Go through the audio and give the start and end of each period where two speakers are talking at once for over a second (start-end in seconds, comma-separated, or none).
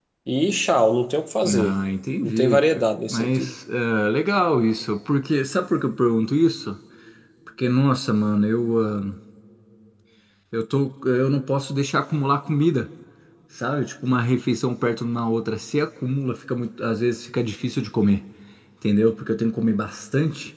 2.2-3.6